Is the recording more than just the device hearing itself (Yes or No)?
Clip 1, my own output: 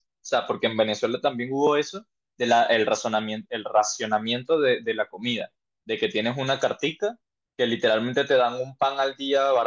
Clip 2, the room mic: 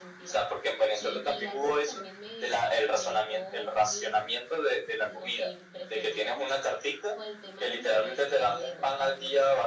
Yes